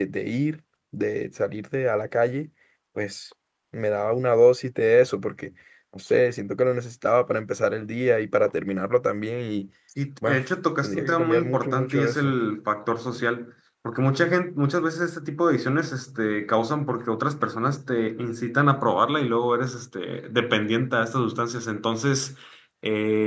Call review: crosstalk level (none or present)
present